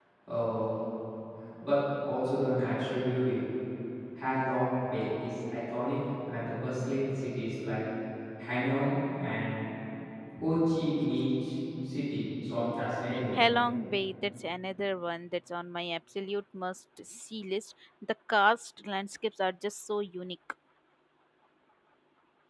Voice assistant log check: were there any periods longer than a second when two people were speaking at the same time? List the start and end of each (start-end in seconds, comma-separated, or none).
none